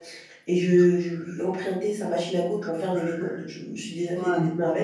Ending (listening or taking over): listening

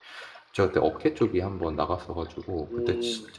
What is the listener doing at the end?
listening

